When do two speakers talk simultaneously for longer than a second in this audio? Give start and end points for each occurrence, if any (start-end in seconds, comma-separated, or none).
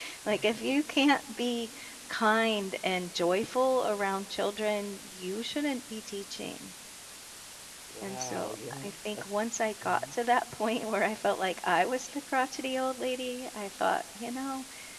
8.0-9.2